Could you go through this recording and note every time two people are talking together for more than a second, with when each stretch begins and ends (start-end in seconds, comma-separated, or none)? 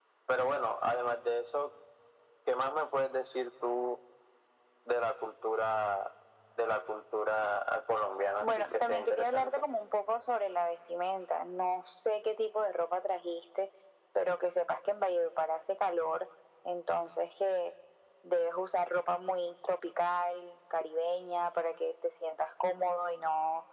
8.4-9.6